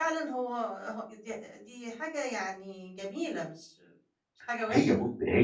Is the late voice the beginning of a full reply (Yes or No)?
Yes